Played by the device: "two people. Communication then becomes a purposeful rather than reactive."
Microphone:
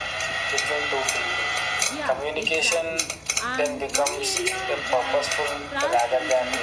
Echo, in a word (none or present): present